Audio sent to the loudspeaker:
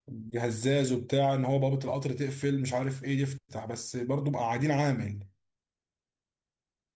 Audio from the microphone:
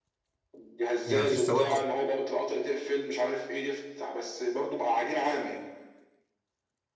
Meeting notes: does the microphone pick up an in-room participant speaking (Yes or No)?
Yes